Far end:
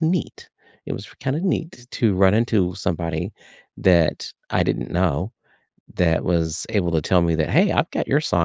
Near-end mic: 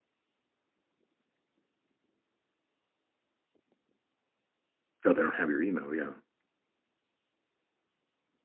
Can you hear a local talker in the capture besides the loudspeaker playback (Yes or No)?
Yes